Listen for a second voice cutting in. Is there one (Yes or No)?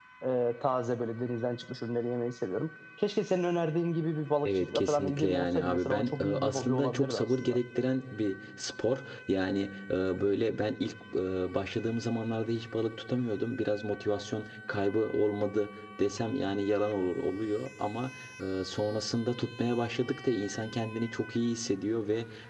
Yes